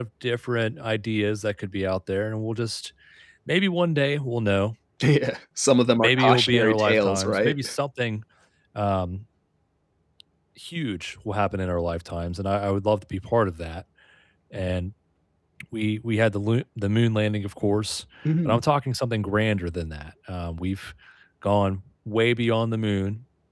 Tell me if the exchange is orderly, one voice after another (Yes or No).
No